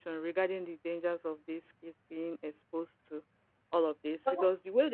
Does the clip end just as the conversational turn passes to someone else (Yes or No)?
No